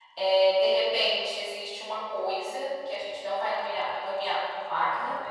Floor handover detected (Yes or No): No